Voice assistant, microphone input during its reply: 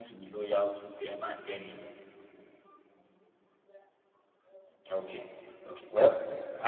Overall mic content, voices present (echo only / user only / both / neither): user only